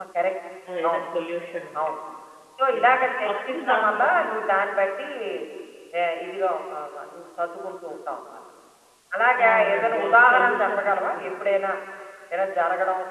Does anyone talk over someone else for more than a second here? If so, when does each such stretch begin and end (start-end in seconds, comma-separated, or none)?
2.8-4.3, 9.5-11.3